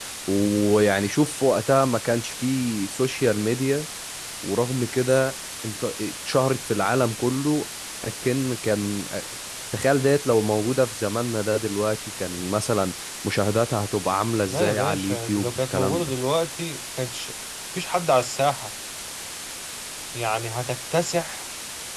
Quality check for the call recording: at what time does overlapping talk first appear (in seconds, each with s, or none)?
14.5 s